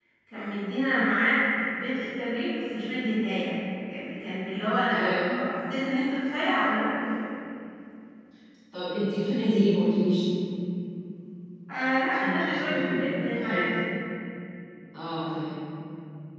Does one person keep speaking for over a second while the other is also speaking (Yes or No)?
Yes